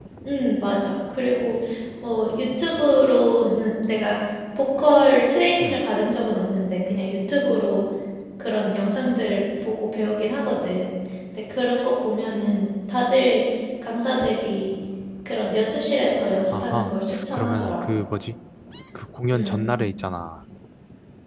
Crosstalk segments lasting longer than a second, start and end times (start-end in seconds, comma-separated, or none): 16.5-18.0